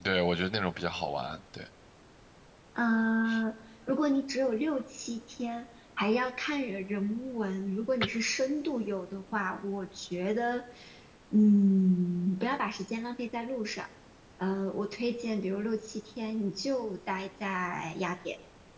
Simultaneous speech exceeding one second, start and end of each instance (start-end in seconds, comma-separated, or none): none